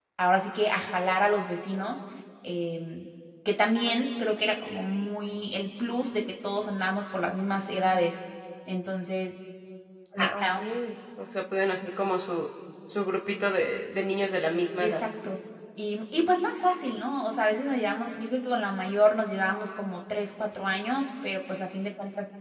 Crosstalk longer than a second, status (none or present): none